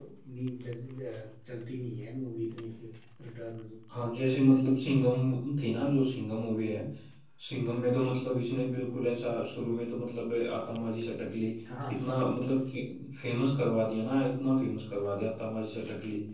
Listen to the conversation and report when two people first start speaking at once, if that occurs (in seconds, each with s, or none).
none